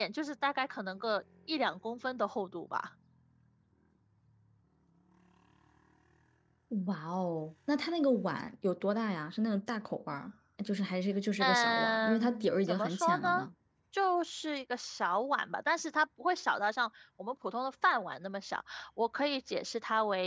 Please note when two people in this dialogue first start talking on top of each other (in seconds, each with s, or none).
11.4 s